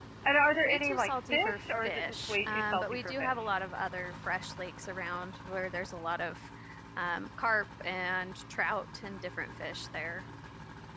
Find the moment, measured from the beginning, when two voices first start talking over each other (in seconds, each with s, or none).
0.6 s